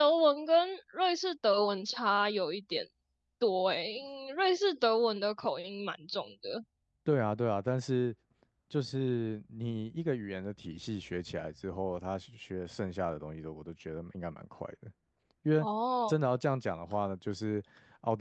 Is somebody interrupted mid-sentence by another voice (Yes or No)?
No